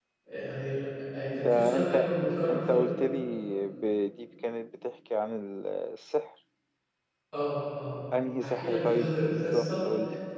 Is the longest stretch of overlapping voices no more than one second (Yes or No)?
No